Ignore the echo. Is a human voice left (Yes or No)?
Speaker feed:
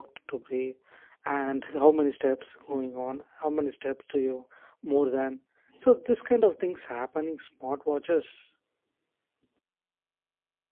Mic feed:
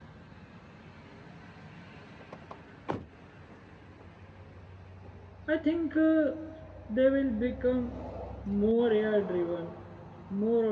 Yes